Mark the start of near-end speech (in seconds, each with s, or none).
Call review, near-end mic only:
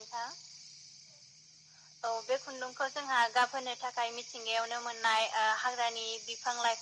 none